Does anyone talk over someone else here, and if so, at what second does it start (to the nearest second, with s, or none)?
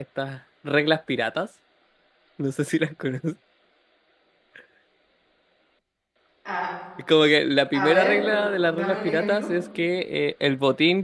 8 s